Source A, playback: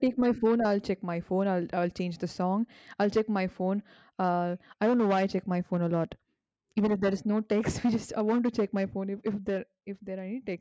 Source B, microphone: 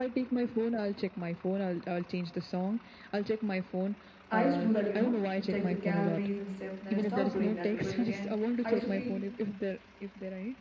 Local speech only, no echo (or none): I used to do that, you know, to check the calories and stuff. Then I stopped doing that because again, I used to feel